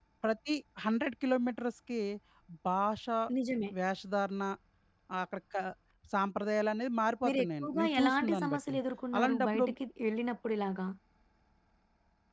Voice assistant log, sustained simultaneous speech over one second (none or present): present